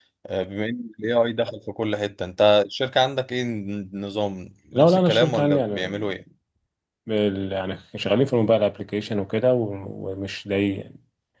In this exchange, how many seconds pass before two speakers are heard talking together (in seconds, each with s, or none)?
4.7 s